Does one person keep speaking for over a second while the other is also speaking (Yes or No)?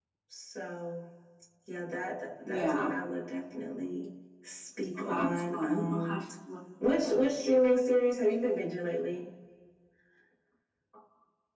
Yes